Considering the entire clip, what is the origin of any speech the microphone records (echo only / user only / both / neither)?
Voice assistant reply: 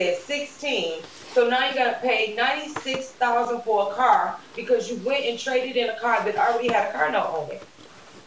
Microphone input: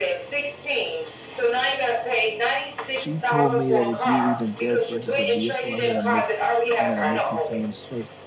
both